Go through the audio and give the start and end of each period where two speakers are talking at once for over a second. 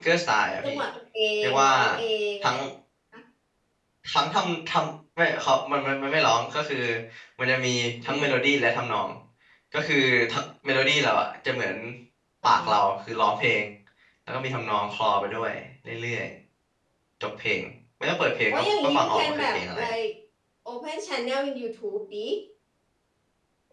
18.5-19.9

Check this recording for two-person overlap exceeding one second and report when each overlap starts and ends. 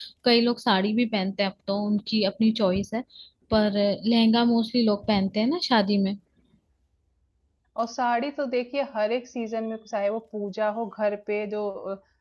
none

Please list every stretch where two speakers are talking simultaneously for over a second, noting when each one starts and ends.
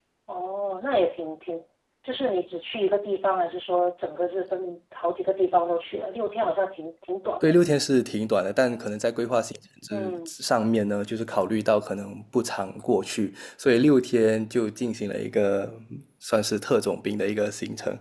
none

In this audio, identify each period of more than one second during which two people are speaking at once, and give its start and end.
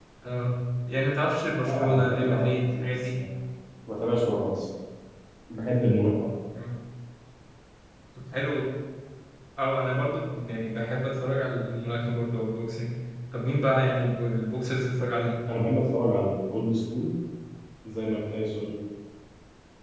1.6-3.2

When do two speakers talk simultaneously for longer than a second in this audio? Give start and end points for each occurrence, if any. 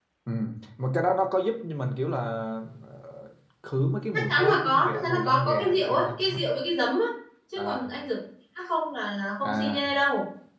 4.1-6.4

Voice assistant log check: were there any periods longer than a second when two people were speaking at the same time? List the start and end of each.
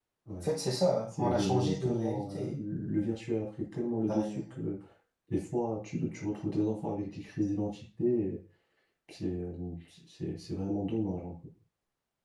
1.1-2.5

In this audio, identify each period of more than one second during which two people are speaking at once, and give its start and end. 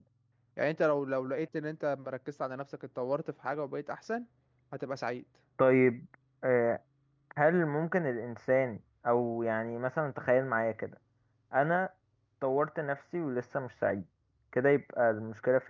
none

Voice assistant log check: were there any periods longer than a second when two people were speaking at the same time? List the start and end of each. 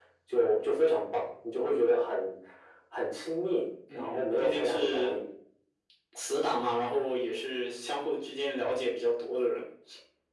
3.9-5.1

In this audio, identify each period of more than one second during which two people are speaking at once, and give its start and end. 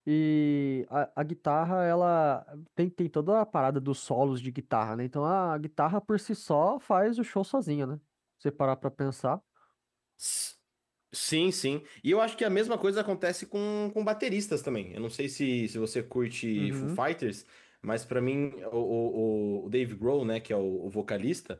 none

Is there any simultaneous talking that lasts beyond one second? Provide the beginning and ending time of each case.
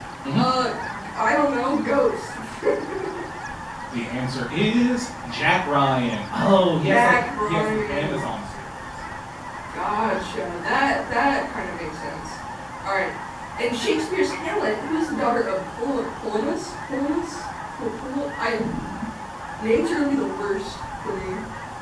6.8-8.3

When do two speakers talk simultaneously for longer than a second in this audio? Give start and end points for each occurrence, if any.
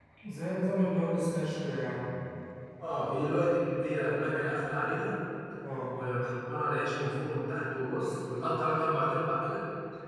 none

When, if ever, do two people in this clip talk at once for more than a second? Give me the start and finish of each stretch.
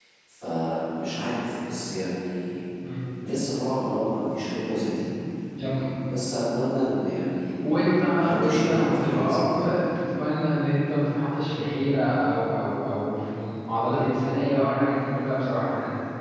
8.1-9.5

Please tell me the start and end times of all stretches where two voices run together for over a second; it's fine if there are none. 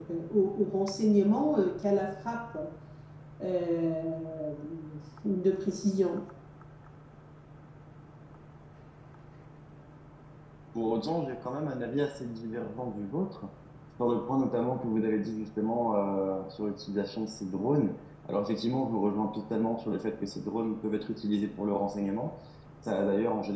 none

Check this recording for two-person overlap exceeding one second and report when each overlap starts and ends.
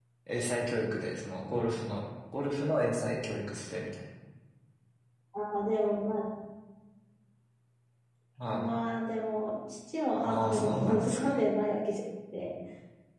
10.2-11.4

